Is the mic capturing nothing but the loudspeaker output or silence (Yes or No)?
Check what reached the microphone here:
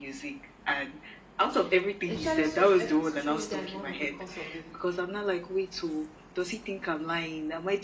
No